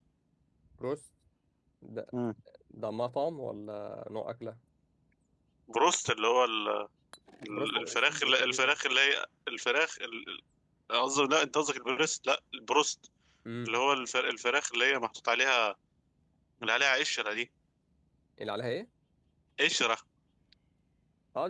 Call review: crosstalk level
present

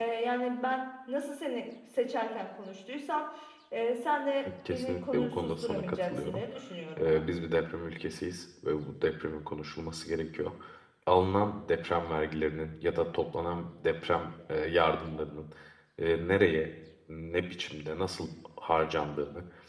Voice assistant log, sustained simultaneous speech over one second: present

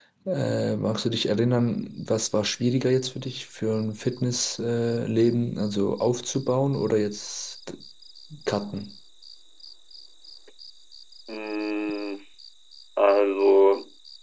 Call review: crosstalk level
none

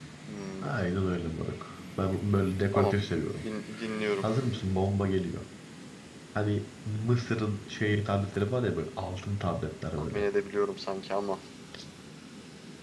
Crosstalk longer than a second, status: none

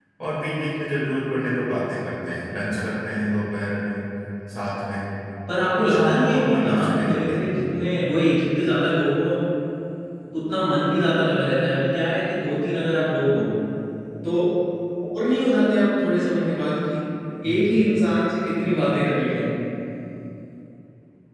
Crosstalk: present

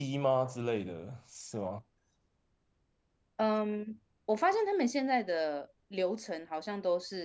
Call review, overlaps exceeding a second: none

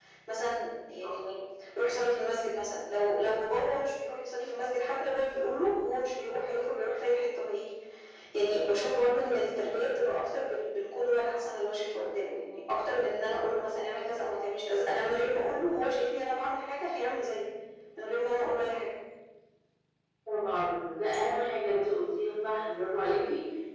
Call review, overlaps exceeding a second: none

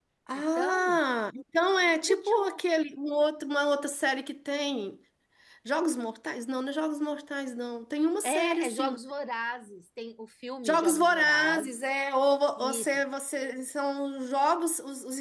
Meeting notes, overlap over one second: present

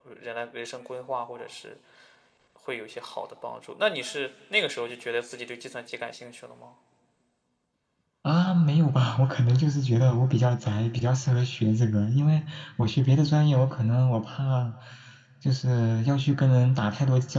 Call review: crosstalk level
none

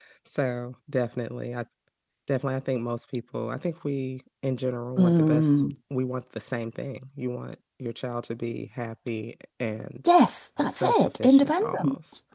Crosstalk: present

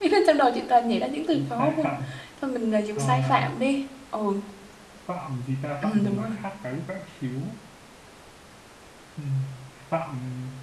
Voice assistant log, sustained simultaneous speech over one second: none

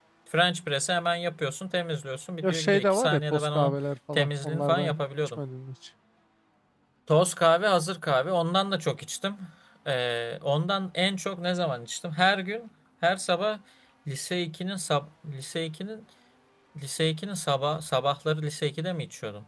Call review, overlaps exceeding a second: present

